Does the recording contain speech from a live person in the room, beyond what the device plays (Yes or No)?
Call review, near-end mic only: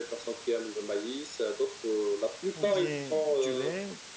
Yes